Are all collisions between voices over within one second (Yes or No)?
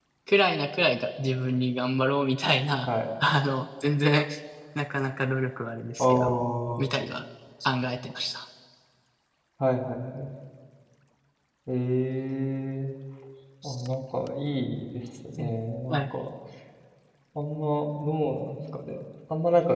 Yes